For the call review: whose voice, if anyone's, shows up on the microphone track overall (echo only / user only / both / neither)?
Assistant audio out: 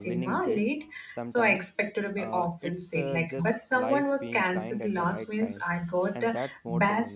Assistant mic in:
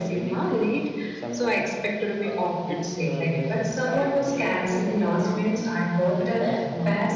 echo only